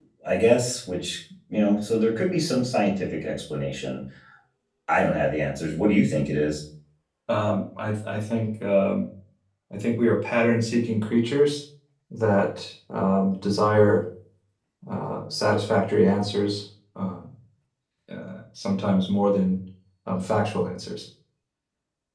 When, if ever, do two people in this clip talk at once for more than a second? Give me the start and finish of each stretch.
none

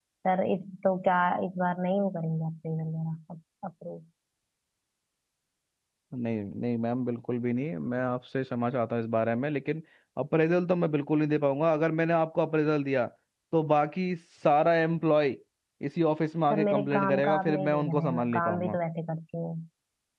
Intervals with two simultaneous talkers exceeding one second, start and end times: 16.5-18.8

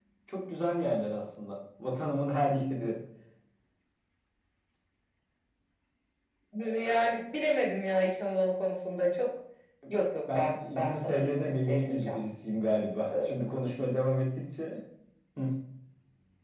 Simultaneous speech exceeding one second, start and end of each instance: 10.3-12.2

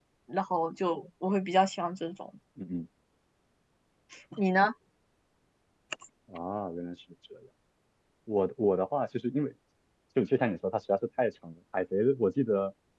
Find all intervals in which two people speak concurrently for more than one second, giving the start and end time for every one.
none

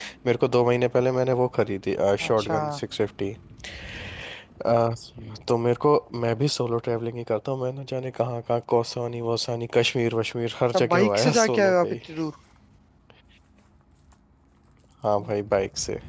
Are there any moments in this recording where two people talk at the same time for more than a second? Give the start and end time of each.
10.7-12.0

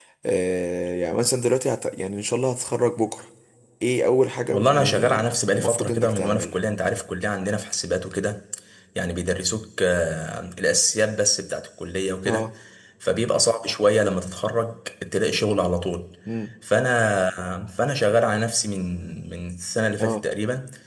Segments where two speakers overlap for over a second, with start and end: 4.5-6.5

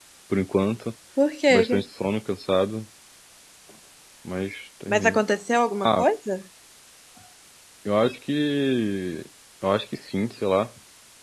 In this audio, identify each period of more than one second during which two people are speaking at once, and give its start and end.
none

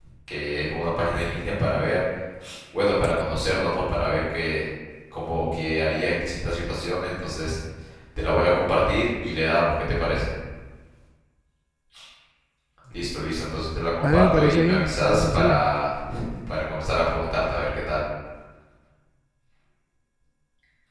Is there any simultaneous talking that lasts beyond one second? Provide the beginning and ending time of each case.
14.0-15.6

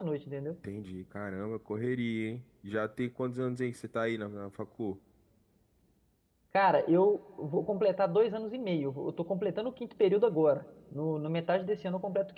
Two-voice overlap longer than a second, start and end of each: none

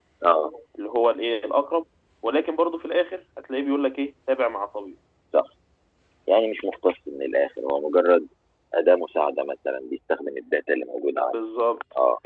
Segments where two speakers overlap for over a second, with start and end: none

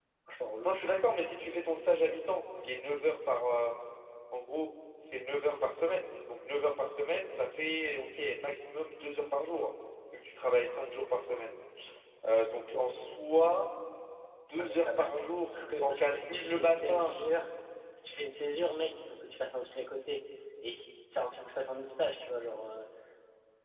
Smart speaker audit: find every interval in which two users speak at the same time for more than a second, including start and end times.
15.5-17.1

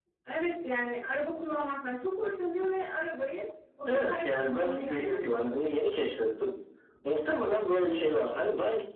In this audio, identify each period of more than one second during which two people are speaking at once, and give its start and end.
3.9-5.4

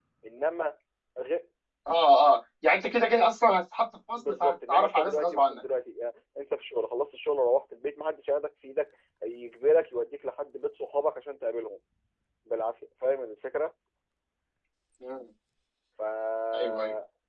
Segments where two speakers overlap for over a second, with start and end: 4.2-5.6

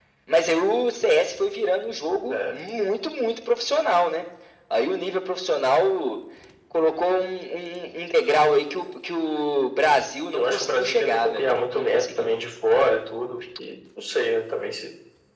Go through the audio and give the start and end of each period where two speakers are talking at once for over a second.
10.3-12.3

